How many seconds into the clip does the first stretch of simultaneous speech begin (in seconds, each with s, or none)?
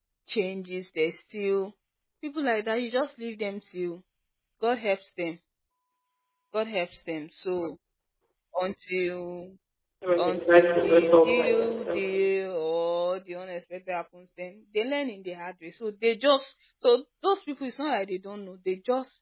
10.2 s